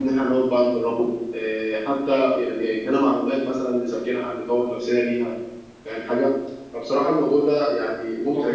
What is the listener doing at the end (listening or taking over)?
listening